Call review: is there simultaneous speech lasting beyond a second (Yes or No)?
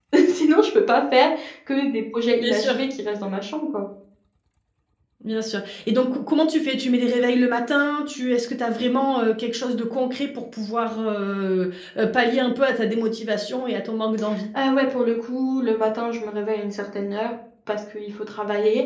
No